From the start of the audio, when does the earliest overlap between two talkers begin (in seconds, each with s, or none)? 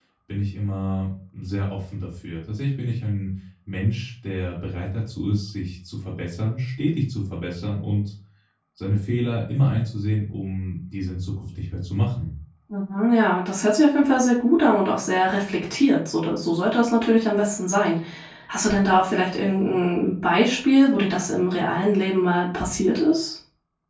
none